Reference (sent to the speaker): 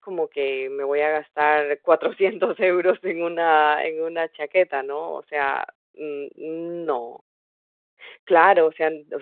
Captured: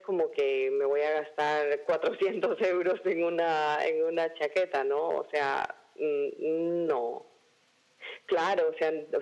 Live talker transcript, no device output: none

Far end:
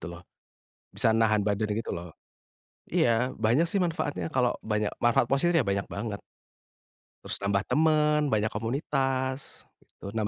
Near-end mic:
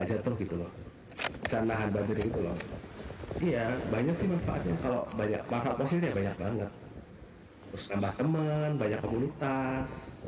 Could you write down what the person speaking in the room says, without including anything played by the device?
none

